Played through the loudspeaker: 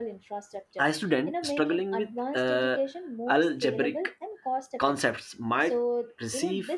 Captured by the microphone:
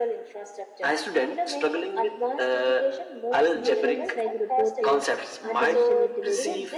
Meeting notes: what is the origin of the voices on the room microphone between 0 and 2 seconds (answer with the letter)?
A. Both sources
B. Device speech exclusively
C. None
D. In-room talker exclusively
B